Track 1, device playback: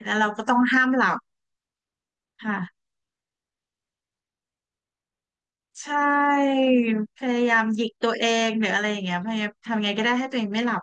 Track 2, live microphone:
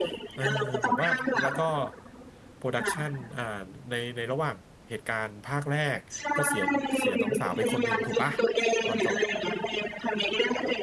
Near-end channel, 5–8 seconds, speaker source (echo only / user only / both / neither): both